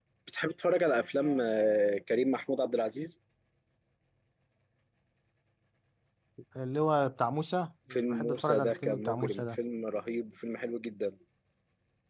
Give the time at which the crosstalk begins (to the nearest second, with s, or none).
8 s